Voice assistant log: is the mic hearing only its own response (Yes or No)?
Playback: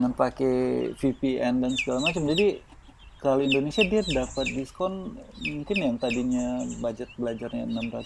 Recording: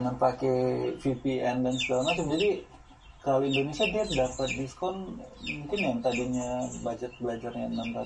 Yes